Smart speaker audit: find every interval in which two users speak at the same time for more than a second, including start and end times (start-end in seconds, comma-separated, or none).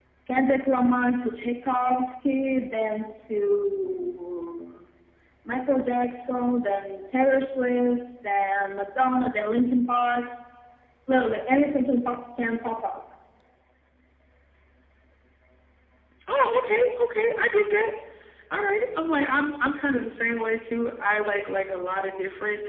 none